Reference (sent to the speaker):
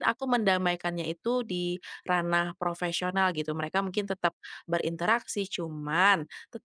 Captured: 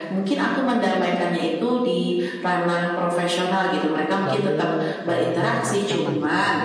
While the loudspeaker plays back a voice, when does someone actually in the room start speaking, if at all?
4.2 s

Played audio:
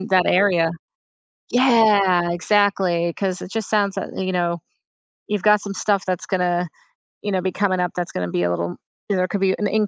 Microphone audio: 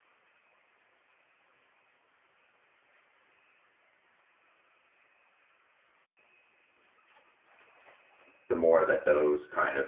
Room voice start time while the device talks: 8.5 s

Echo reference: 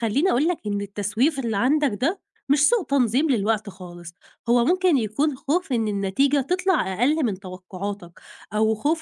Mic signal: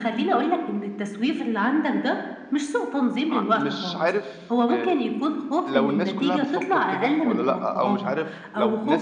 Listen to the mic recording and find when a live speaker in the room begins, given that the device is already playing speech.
3.3 s

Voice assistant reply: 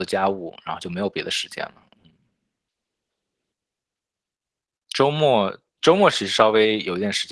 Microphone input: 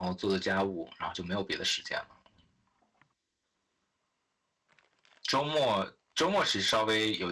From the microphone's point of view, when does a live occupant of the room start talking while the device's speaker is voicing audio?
none

